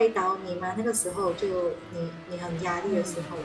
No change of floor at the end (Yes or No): No